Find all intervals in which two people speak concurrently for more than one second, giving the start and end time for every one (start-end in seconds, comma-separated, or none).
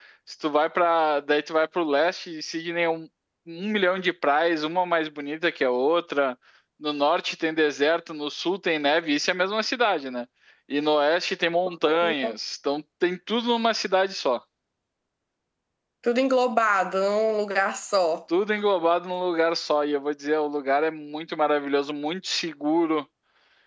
none